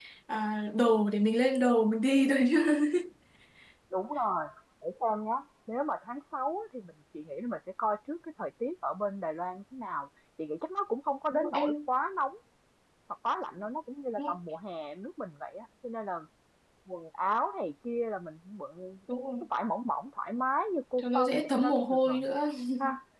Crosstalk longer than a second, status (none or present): present